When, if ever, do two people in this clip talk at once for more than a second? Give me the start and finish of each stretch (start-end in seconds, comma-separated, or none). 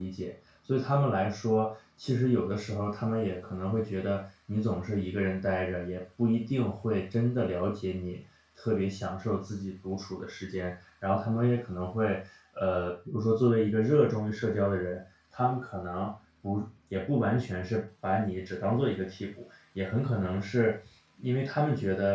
none